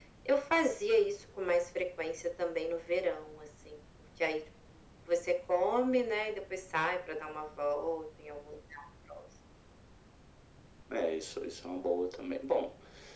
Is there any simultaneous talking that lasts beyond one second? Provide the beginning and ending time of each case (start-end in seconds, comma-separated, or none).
none